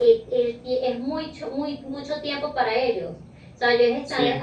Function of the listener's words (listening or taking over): listening